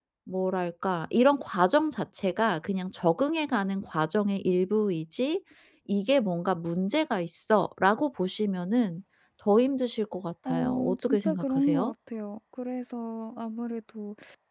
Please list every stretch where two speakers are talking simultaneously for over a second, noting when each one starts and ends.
10.5-11.9

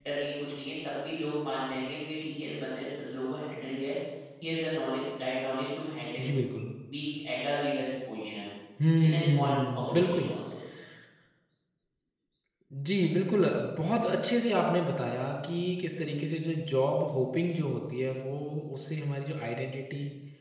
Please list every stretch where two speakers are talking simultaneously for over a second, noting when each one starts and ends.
9.1-10.3

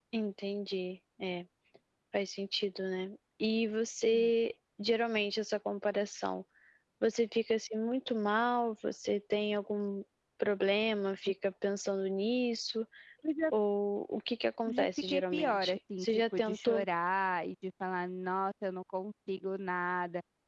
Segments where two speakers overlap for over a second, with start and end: 14.7-16.9

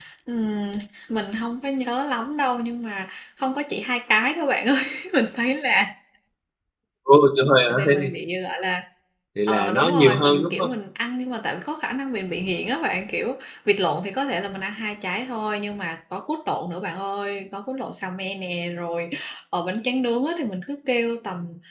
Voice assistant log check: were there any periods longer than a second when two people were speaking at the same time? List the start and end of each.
9.5-10.7

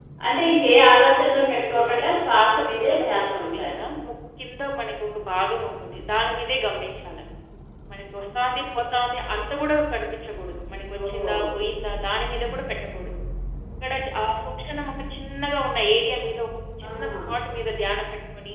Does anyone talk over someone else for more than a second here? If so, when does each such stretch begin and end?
1.2-3.7

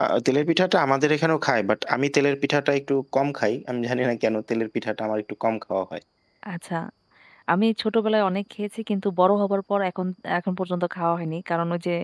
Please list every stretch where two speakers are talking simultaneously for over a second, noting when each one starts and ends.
none

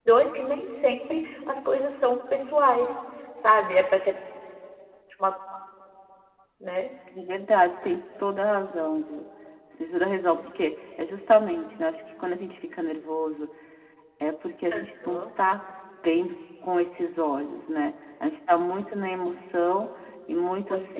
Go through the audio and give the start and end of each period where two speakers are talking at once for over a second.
none

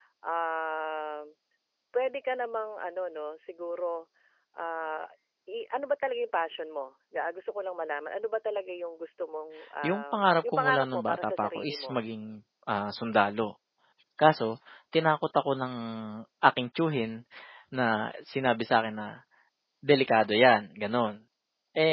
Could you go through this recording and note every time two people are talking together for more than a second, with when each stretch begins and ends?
9.8-12.0

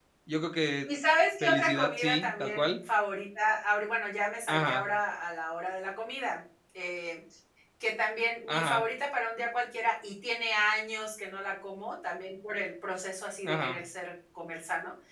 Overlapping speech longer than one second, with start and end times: 1.4-2.7

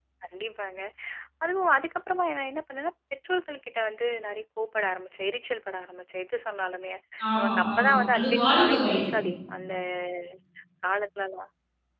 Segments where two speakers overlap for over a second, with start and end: 7.4-9.0

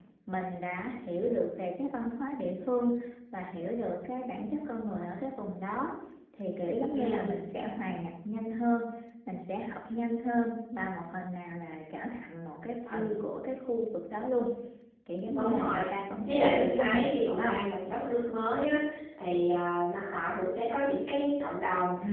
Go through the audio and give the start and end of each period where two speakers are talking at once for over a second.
16.3-17.6

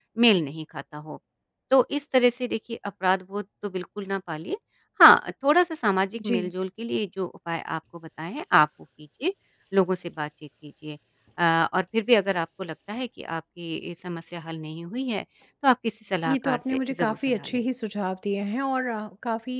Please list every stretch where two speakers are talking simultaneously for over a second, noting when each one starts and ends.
16.3-17.5

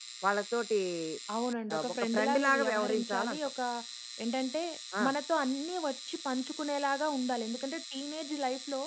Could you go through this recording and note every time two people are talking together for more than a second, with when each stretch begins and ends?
1.7-3.4

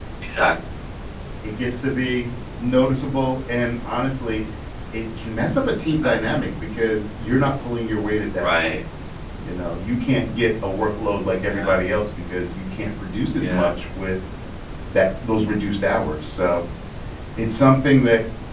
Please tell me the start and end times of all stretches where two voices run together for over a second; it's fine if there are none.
none

